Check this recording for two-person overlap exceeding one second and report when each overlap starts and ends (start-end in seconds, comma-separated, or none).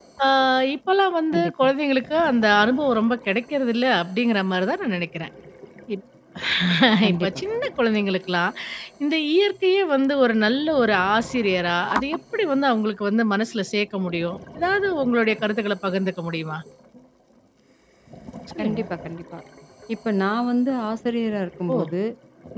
none